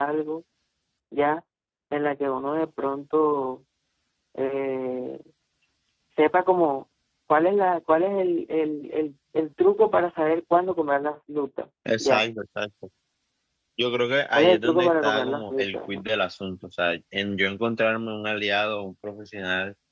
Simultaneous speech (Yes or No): Yes